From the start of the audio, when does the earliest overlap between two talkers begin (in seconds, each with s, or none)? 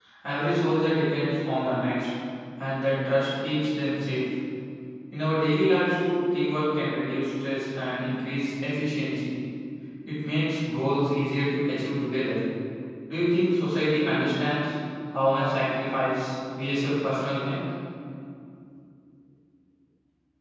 none